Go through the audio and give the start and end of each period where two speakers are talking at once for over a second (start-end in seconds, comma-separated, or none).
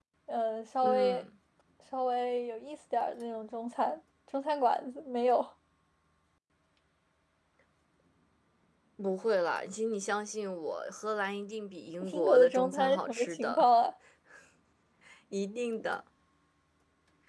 12.1-13.7